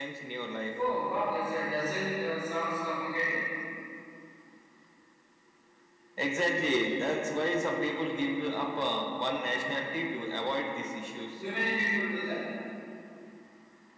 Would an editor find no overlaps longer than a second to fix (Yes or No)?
Yes